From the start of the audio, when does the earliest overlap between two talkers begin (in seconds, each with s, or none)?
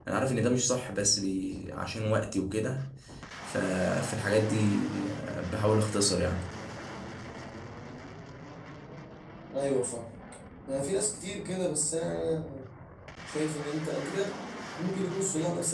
none